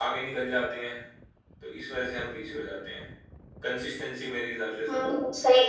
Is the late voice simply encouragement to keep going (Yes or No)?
No